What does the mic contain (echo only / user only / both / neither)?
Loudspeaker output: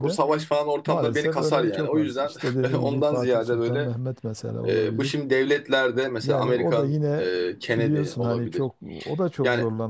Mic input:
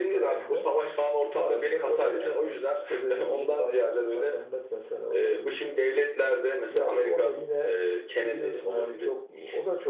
echo only